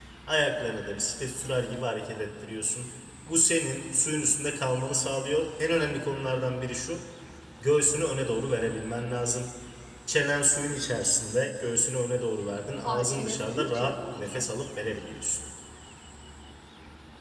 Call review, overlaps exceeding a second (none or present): present